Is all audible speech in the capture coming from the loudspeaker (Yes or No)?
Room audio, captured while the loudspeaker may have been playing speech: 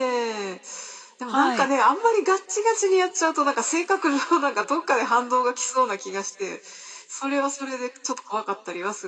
No